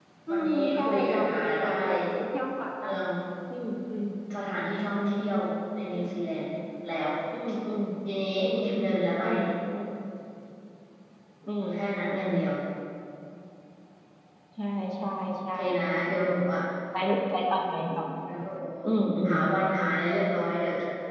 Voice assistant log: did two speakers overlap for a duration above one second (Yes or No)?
Yes